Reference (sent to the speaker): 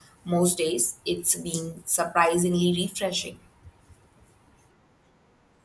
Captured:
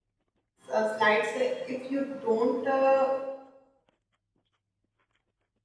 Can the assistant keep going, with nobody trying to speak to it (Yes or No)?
No